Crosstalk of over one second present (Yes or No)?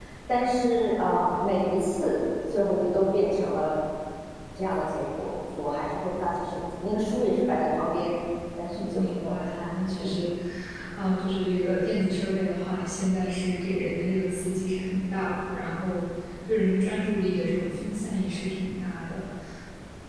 Yes